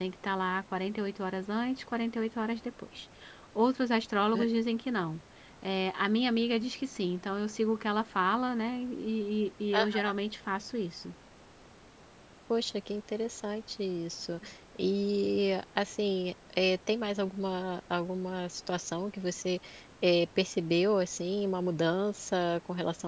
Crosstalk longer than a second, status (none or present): none